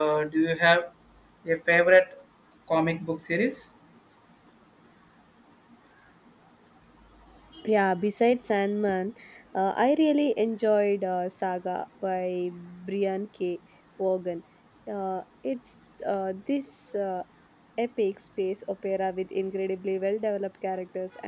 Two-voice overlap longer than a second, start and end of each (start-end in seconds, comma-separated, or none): none